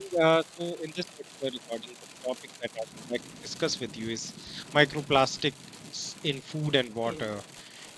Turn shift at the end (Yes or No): No